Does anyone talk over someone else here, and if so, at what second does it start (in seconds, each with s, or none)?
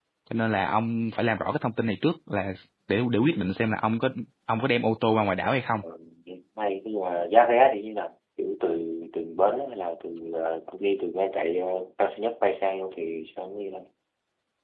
none